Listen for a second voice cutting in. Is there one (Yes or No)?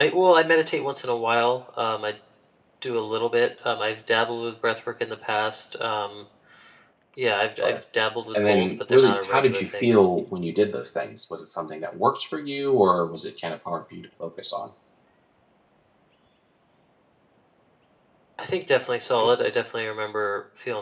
Yes